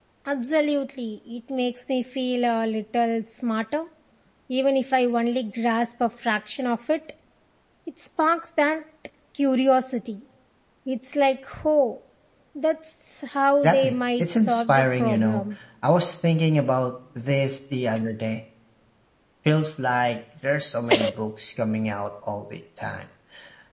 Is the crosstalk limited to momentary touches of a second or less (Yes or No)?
No